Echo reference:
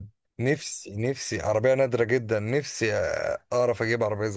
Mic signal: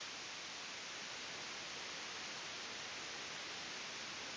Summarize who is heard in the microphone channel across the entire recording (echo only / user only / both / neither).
neither